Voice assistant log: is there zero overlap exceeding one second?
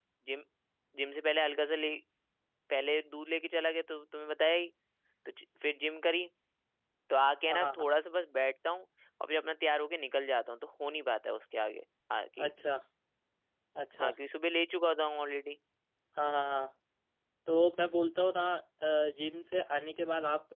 Yes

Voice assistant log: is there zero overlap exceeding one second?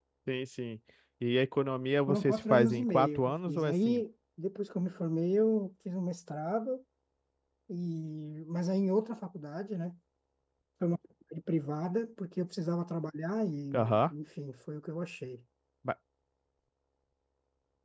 No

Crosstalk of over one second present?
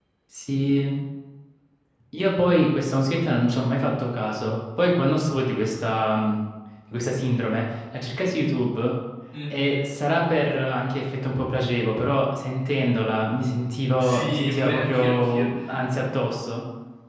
Yes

